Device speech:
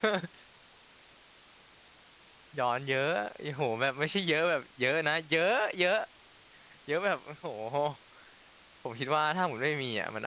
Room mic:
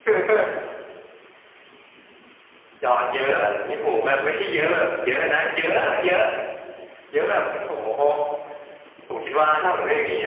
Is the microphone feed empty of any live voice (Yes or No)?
Yes